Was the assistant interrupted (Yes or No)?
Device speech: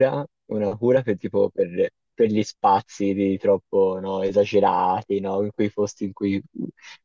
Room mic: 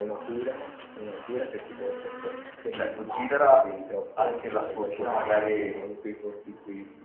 Yes